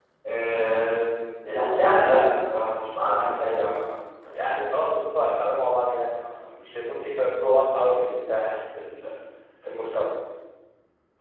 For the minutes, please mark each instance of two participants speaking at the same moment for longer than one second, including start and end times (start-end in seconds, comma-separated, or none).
none